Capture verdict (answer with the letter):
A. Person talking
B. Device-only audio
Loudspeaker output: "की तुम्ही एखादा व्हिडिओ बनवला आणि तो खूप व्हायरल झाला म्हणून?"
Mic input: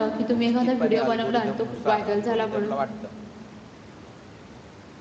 A